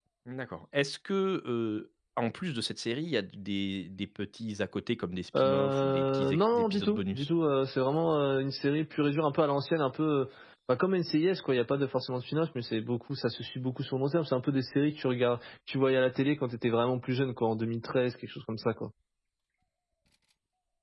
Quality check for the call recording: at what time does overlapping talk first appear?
5 s

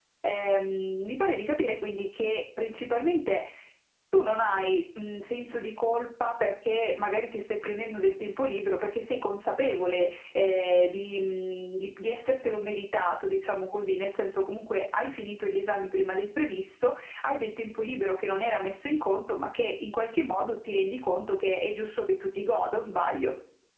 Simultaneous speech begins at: none

